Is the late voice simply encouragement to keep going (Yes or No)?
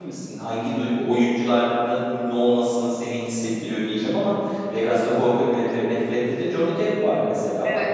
No